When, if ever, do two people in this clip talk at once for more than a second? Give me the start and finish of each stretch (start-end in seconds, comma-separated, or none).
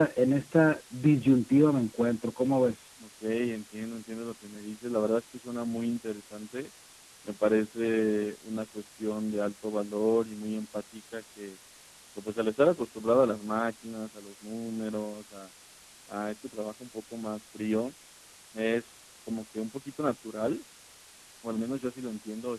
none